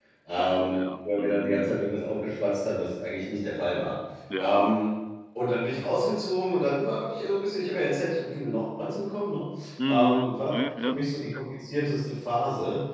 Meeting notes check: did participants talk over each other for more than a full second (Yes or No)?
Yes